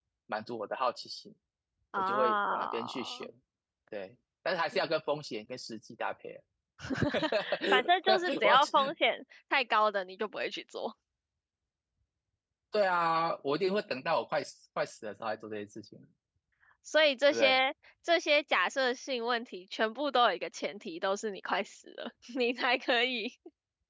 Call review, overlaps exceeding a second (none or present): present